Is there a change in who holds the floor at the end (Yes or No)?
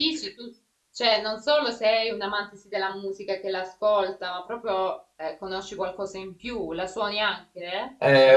Yes